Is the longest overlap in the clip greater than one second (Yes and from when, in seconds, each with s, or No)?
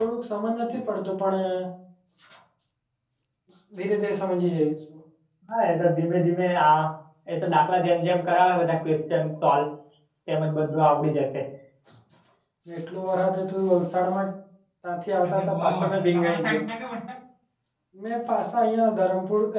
Yes, from 15.2 s